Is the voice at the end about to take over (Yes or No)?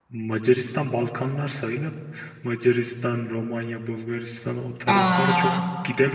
No